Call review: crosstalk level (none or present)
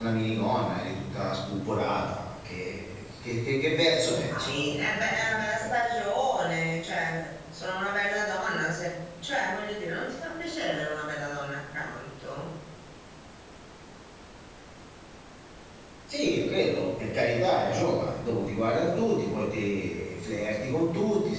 present